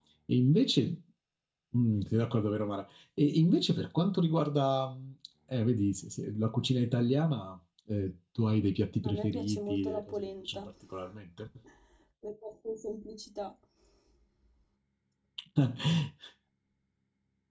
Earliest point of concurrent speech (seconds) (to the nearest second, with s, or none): 9 s